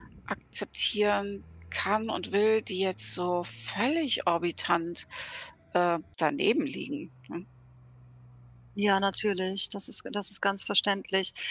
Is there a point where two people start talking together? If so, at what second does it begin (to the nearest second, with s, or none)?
none